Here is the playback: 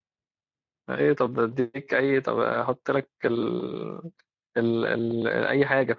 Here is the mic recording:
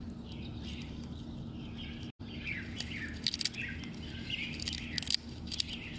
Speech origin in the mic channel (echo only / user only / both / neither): neither